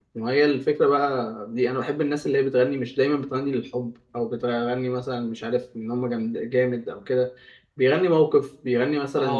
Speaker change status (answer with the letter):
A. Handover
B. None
A